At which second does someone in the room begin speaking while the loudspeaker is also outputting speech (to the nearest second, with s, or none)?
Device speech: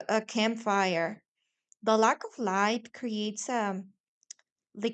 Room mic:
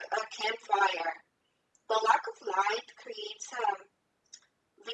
none